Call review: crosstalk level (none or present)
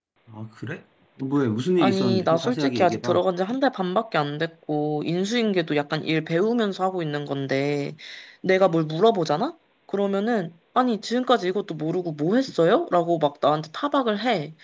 present